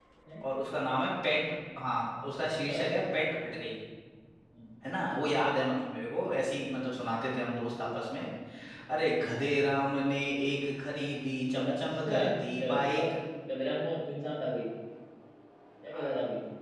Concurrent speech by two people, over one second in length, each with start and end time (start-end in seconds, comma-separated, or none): 11.7-13.1